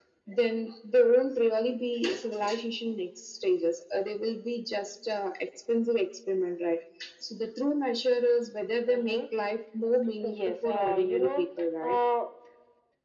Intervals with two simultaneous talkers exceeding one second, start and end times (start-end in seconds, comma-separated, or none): 10.2-11.4